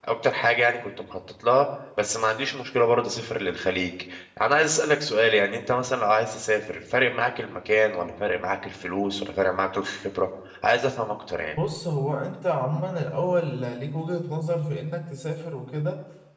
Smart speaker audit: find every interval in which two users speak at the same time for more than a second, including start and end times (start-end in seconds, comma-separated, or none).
none